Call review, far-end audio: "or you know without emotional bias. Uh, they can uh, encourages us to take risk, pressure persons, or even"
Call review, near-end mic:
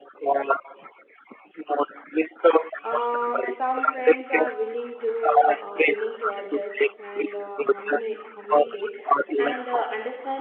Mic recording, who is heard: both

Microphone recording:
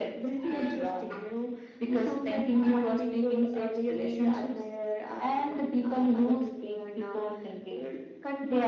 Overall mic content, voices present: echo only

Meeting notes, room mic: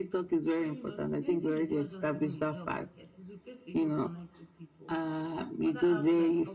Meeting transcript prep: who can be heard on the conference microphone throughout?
both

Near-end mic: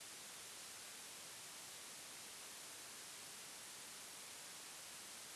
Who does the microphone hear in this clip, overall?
neither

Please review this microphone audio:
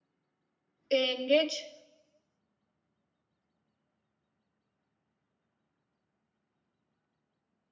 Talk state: user only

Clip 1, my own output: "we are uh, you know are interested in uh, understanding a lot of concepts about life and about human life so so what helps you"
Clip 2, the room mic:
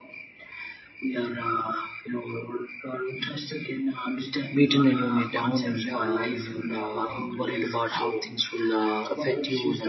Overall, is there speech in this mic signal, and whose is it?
both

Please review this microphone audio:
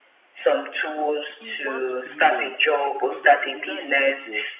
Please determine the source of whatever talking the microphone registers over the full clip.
both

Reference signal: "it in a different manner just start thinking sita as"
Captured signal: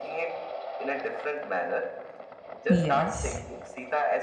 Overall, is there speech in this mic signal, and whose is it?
both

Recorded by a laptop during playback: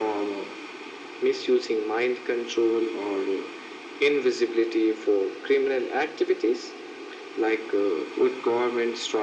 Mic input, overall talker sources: echo only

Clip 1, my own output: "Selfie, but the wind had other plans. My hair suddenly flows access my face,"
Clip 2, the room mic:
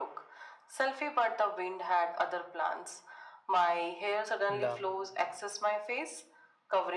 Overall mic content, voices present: both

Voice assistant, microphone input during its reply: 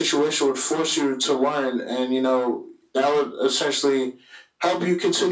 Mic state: echo only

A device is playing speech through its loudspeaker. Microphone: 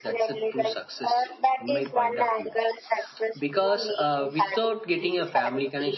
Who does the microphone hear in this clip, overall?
both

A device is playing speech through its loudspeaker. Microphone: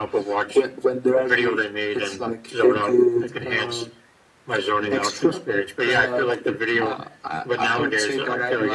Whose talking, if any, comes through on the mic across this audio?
echo only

